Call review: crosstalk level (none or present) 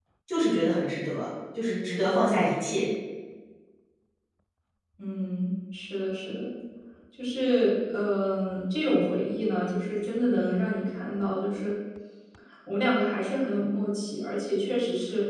none